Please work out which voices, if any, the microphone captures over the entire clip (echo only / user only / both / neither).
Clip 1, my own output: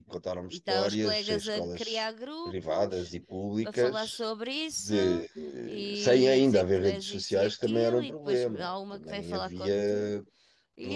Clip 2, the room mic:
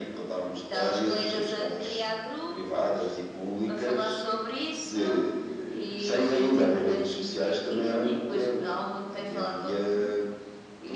echo only